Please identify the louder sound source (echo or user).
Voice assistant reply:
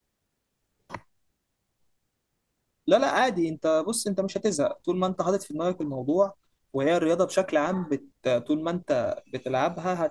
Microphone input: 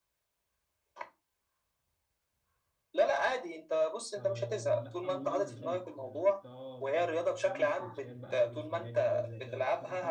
echo